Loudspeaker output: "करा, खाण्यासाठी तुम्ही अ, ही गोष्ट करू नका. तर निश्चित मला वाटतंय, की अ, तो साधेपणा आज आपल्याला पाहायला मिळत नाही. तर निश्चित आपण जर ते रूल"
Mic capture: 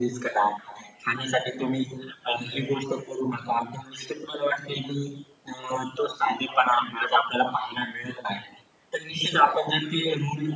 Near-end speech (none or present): none